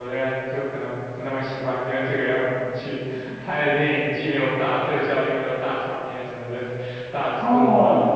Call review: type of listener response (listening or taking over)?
taking over